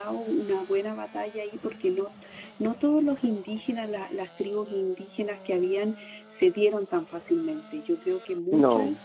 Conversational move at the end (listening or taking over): listening